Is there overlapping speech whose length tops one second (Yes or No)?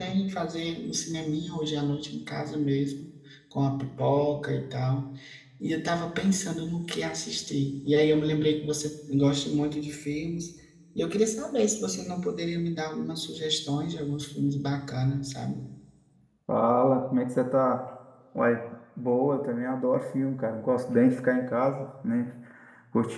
No